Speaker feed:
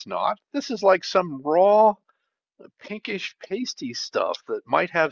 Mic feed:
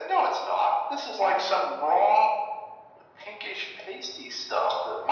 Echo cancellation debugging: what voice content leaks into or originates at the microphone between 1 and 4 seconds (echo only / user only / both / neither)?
echo only